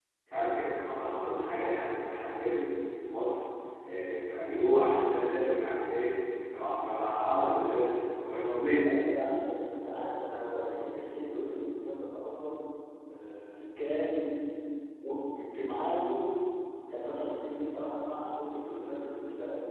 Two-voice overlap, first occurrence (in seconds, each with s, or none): none